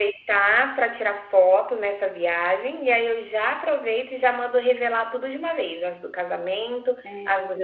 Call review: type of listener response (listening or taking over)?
listening